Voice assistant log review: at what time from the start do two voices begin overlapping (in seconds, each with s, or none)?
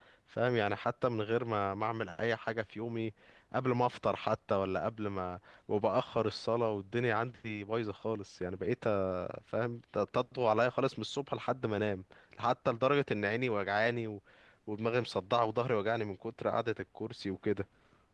none